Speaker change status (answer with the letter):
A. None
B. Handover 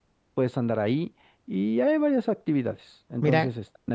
A